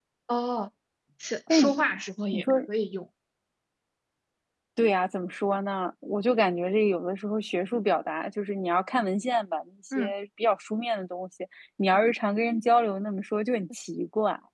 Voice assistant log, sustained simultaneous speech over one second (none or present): none